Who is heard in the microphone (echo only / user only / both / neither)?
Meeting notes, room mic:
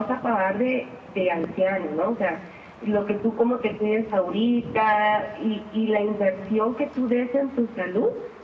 echo only